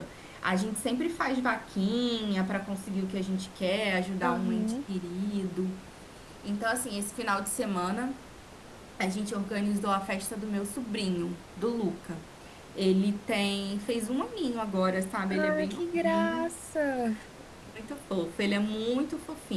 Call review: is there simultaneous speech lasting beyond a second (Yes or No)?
Yes